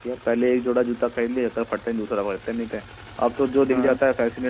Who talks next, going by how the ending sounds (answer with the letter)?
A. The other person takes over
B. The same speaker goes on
B